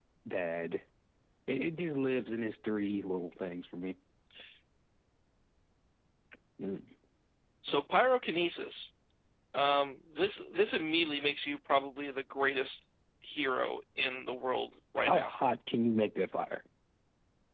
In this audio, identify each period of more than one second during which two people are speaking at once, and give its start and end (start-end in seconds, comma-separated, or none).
none